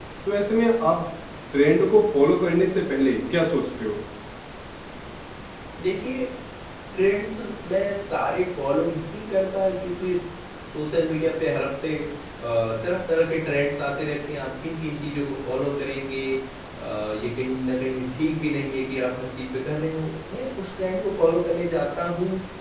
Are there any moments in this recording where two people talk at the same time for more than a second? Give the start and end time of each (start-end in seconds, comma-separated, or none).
none